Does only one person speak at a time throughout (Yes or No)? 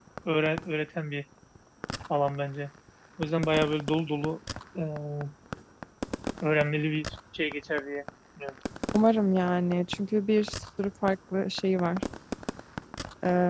Yes